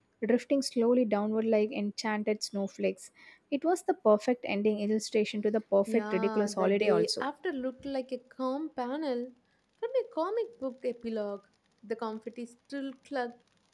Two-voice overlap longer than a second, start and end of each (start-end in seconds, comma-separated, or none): 5.9-7.2